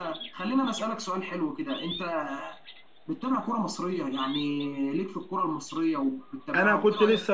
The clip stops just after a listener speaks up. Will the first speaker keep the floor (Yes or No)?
No